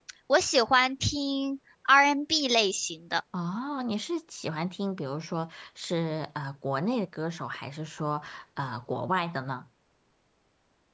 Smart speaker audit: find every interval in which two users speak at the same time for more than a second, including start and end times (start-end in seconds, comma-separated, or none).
none